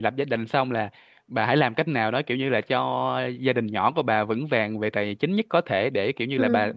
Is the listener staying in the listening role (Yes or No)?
Yes